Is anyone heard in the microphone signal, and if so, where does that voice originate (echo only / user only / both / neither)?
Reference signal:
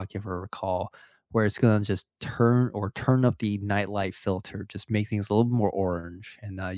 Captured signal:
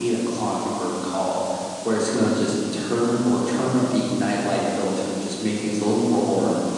echo only